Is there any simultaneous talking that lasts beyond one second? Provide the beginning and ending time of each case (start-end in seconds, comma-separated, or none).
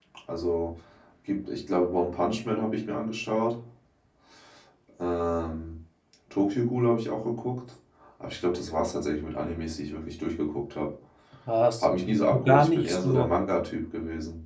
11.8-13.3